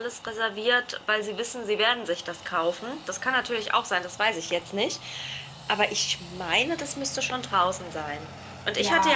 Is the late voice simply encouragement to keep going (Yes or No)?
Yes